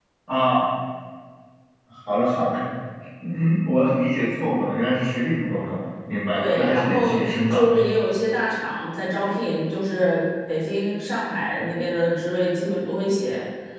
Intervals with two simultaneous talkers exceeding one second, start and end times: 6.3-7.6

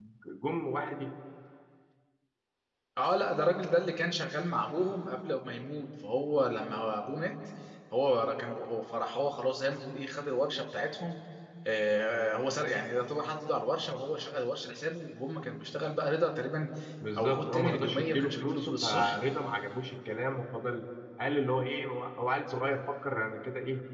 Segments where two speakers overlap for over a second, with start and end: 17.2-19.1

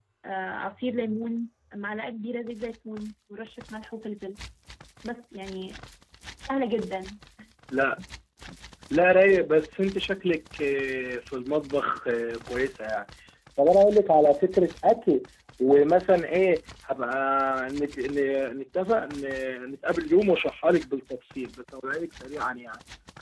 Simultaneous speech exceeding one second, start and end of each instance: none

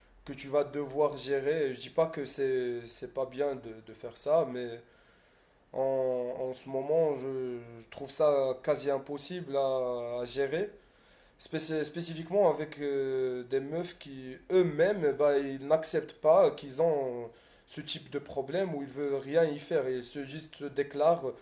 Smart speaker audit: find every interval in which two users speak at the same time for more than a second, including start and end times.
none

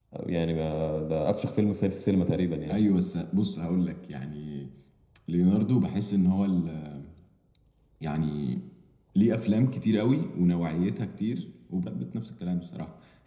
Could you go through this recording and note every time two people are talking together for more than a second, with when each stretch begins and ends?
none

